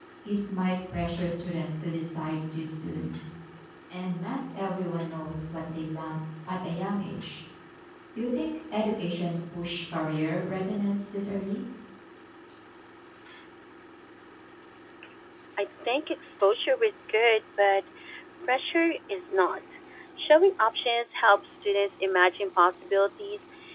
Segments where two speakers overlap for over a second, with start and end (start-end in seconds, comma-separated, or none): none